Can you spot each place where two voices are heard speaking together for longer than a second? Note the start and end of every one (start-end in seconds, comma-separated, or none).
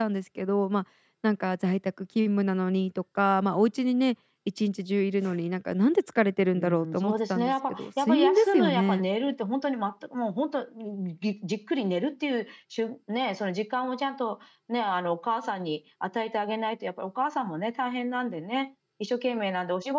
6.6-9.0